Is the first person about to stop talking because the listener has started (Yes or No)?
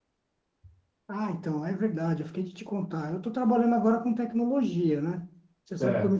No